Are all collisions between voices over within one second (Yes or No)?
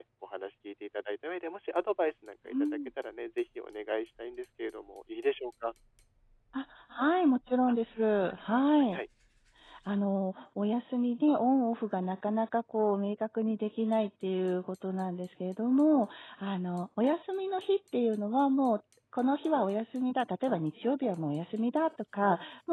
Yes